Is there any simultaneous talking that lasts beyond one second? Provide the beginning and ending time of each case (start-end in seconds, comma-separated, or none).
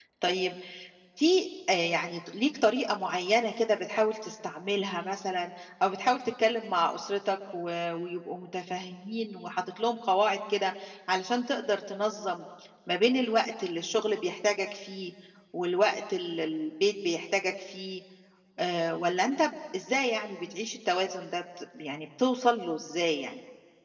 none